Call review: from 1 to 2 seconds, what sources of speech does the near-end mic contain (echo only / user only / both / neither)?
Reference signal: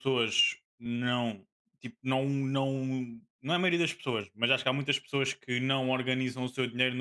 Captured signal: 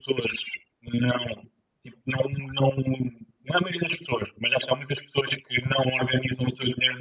echo only